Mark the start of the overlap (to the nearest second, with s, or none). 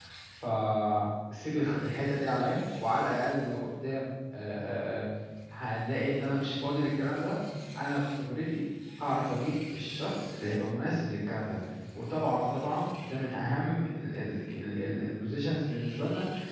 none